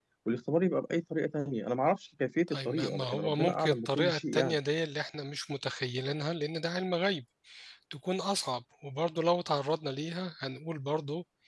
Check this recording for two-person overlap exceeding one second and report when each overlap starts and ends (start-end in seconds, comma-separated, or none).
2.5-4.6